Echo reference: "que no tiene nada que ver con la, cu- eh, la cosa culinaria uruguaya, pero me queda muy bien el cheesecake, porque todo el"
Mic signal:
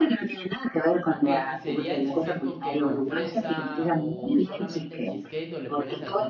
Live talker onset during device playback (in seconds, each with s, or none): 1.1 s